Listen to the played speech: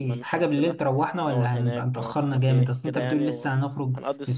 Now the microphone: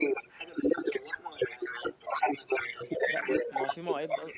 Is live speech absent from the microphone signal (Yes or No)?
No